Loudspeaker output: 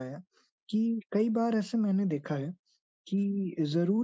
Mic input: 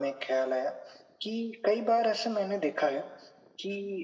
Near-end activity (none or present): none